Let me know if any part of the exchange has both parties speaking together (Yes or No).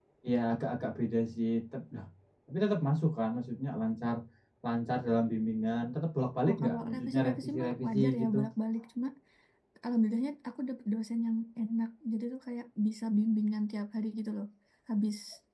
Yes